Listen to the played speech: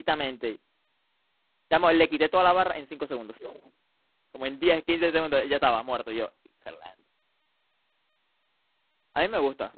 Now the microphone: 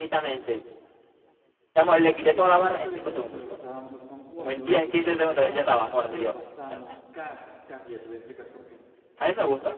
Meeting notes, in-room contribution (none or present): present